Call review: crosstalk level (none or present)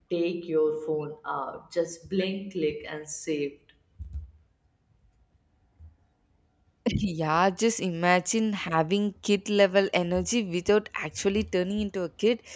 none